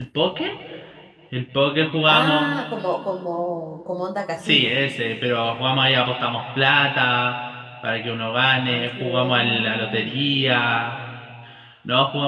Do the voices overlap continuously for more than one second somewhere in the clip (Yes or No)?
Yes